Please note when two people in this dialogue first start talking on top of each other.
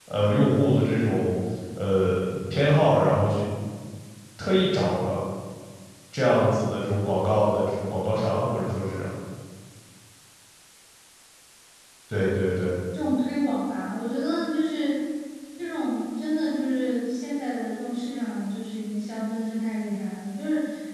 none

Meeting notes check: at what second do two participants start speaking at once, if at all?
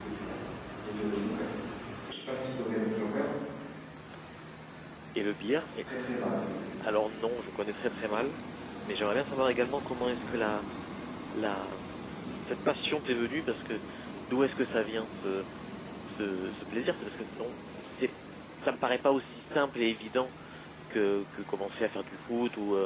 none

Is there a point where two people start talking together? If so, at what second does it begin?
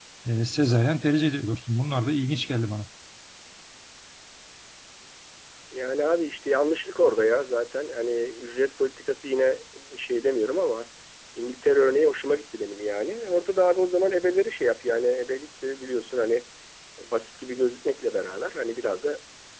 none

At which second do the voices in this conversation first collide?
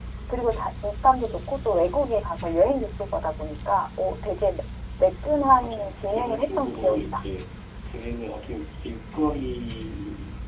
5.4 s

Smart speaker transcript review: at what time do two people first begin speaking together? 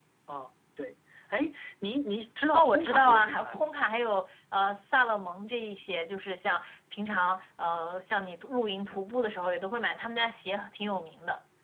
2.5 s

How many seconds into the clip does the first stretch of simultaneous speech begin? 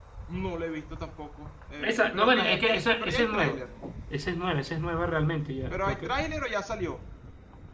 1.8 s

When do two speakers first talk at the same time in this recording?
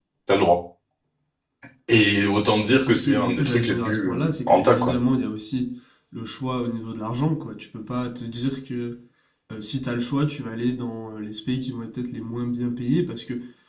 2.7 s

